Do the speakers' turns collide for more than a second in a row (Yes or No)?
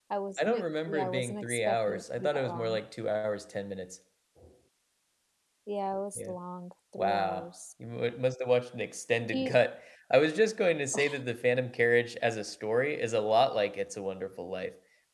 Yes